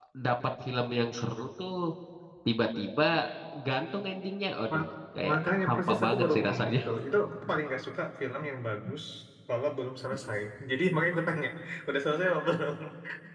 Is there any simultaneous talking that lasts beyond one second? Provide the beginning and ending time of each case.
5.3-6.8

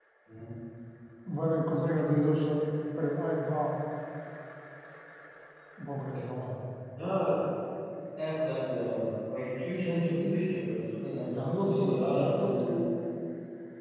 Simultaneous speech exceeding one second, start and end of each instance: 11.2-12.7

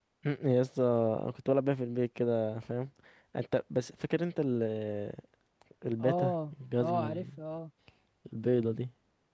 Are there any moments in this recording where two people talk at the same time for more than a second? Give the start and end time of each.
6.0-7.2

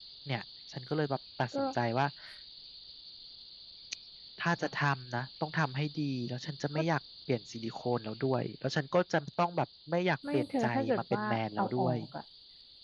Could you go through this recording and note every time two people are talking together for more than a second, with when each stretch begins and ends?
10.3-12.0

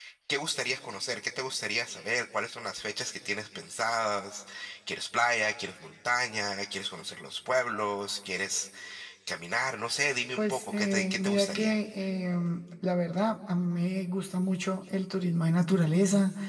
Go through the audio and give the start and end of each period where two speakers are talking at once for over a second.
10.4-11.8

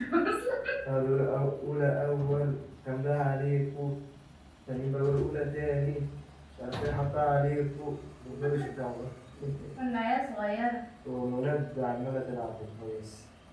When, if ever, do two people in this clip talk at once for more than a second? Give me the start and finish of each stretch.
none

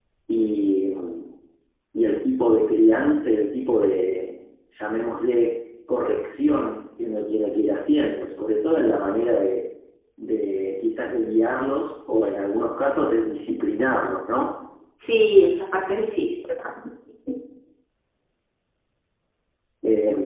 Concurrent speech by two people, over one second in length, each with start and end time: none

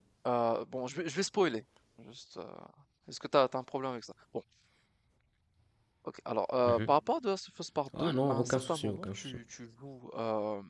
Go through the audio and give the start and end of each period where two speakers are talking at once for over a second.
8.0-9.4

